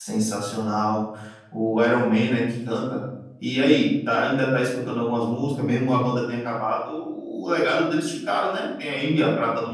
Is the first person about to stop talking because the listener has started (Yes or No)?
No